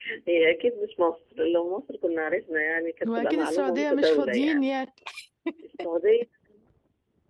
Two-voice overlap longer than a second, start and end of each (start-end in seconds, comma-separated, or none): 3.1-4.7